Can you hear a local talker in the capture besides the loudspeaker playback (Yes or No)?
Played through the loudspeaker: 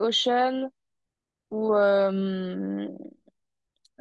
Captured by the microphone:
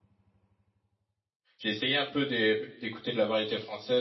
Yes